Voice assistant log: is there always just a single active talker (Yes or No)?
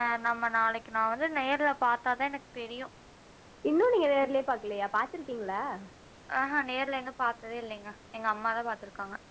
Yes